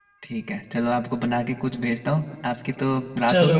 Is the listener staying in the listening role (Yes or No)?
No